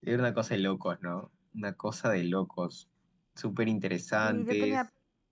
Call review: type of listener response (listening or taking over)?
taking over